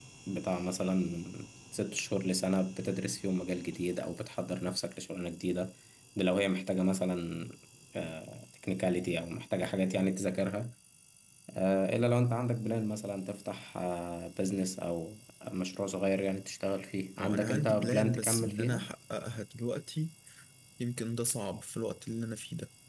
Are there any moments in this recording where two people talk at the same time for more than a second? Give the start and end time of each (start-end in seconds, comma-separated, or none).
17.2-18.9